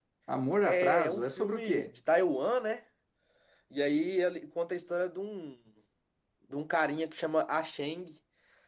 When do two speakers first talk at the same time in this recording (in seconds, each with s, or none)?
0.6 s